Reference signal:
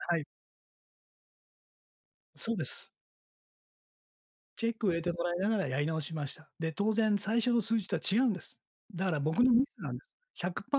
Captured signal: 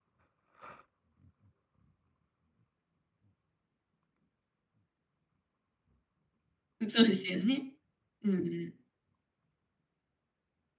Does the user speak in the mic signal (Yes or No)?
Yes